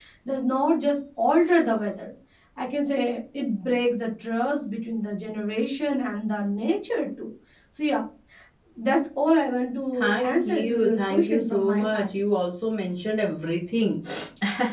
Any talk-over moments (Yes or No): Yes